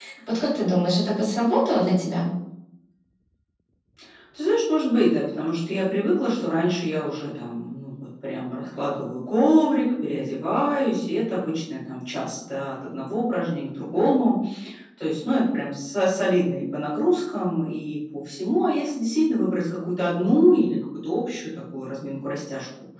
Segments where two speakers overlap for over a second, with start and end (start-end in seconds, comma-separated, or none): none